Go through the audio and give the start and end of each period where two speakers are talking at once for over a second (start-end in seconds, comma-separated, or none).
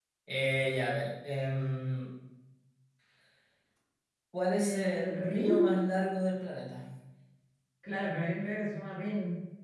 4.5-5.8